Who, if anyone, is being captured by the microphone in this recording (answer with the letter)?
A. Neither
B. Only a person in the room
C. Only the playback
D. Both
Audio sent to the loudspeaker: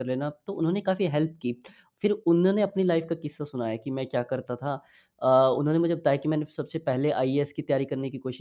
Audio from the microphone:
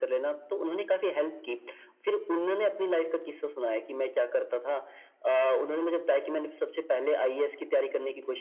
C